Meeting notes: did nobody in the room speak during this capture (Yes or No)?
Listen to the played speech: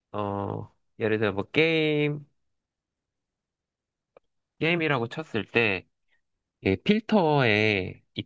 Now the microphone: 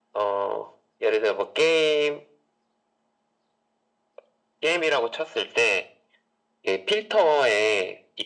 Yes